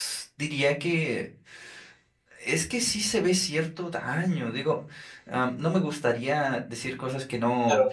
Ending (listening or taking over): taking over